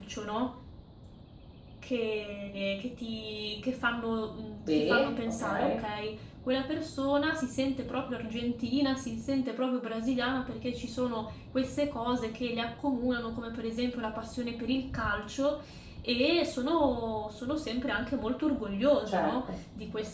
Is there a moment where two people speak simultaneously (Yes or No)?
Yes